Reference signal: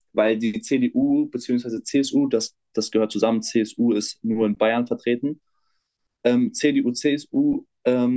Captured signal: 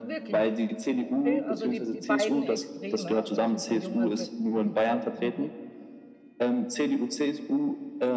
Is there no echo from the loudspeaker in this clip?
No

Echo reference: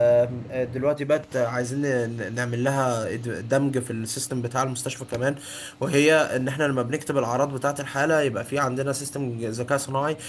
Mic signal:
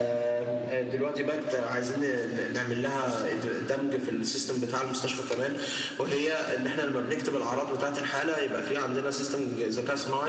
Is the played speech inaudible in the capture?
No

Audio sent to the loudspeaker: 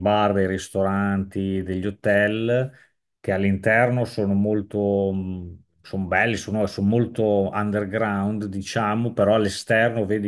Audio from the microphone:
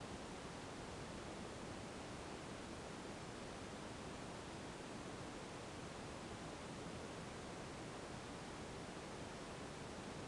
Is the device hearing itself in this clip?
No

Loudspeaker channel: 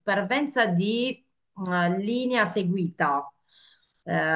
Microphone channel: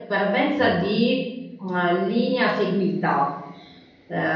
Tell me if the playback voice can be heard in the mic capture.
Yes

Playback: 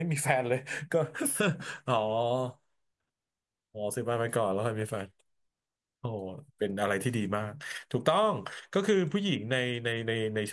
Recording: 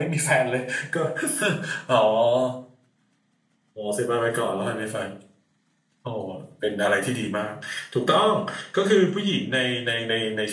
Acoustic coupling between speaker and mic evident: Yes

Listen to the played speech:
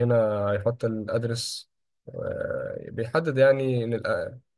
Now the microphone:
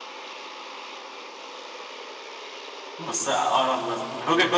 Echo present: No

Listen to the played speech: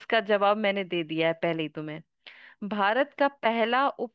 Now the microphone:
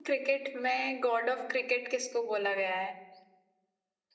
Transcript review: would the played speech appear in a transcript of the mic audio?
No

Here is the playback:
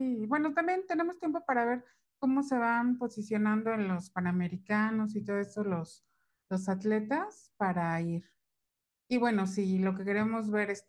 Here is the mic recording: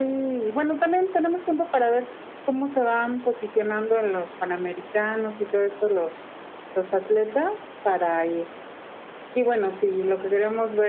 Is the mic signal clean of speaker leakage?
No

